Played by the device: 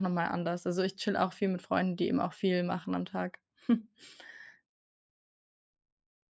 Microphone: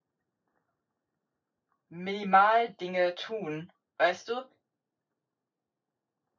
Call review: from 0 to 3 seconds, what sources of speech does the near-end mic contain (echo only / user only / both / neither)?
user only